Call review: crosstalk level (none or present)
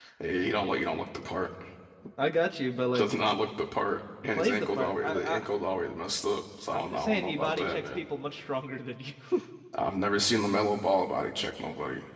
present